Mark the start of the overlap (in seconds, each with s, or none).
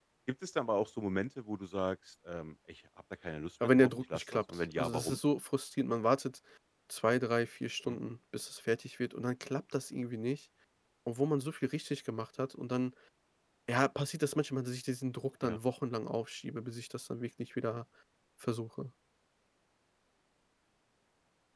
3.6 s